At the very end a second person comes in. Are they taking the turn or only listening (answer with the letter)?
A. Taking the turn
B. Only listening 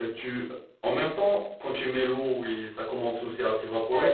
A